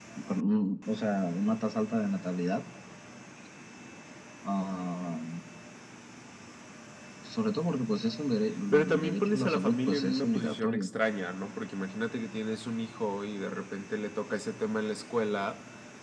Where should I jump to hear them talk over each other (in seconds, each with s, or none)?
8.7 s